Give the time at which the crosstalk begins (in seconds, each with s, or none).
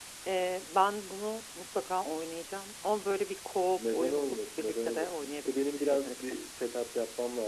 3.8 s